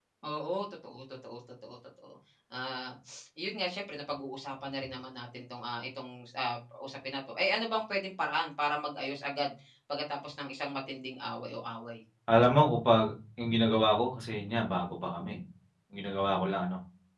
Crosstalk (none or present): none